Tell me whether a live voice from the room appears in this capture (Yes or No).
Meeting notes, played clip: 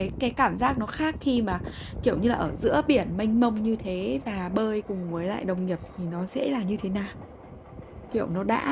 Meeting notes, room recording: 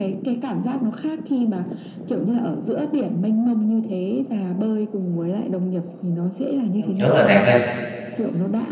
Yes